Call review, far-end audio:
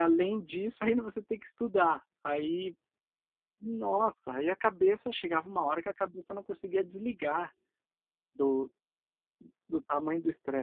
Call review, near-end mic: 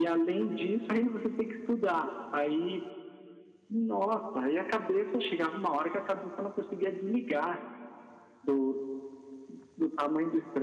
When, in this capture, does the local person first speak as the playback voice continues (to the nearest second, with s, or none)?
none